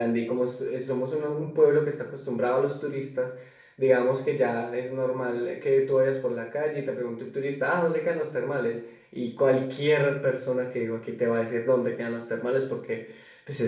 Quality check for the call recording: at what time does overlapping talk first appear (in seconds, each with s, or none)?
none